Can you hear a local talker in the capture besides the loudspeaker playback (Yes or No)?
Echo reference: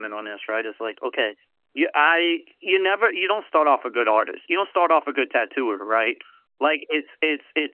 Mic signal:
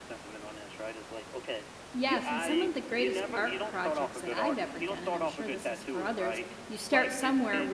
Yes